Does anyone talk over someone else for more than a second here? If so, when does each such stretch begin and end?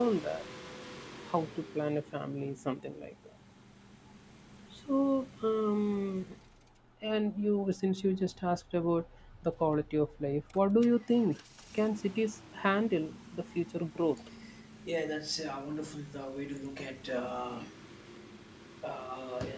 none

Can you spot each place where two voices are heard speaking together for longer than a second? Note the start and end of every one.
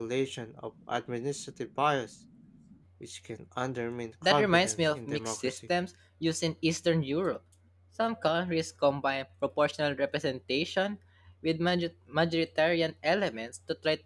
4.2-5.6

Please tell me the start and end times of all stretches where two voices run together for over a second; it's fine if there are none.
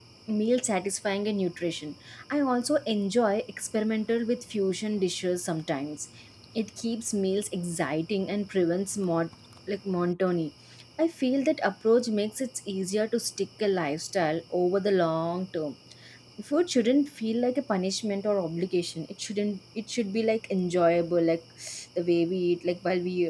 none

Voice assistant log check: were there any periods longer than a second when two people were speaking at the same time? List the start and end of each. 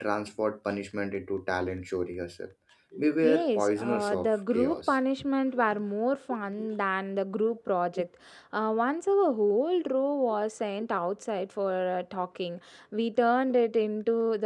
3.2-5.0

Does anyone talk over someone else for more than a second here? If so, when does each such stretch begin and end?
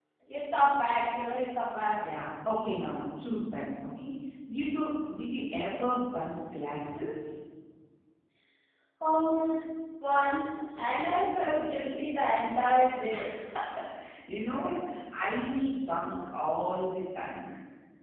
none

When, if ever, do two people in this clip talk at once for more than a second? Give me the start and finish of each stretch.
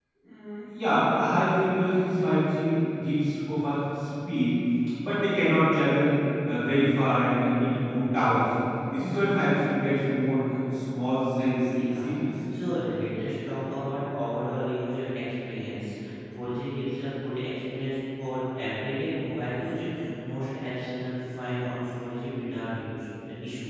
none

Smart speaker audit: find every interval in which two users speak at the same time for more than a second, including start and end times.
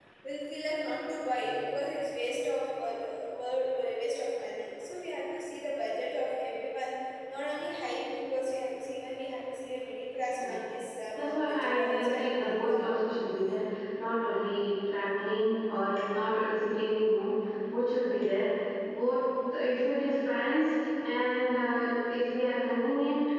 11.2-12.8

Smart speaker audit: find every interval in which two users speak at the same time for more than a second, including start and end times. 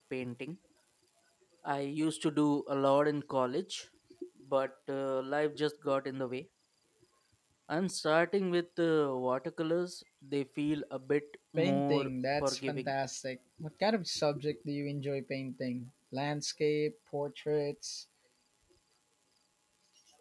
11.6-12.9

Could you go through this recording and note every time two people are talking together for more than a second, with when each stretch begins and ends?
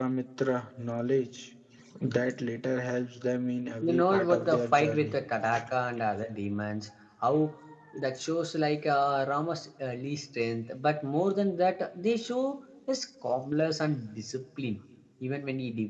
3.8-5.2

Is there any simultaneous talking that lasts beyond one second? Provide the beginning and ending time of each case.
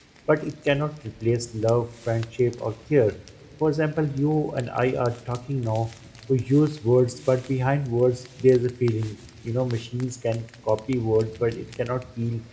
none

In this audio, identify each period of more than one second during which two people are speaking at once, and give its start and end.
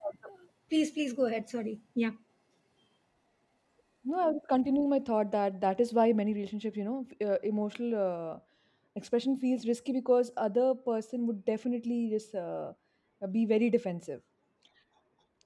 none

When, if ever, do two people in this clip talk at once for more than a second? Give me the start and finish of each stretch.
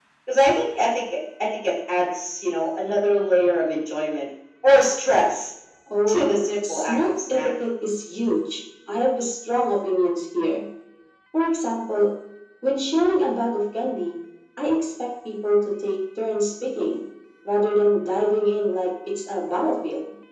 6.1-7.5

